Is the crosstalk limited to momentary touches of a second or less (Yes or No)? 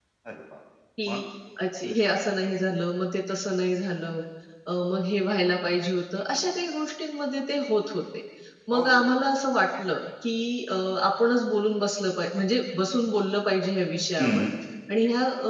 Yes